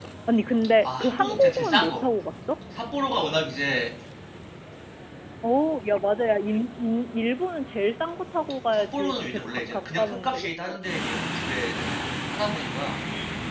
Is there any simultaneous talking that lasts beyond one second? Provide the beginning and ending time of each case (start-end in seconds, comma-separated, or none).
0.8-2.0, 8.7-10.8